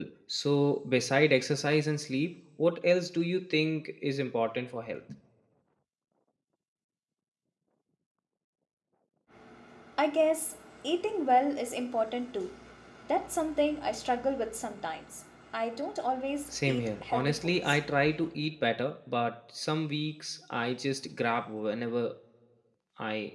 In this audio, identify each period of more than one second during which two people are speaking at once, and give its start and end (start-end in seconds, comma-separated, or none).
16.5-17.8